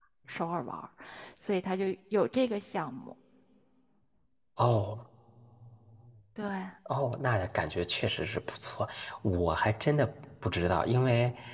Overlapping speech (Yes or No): No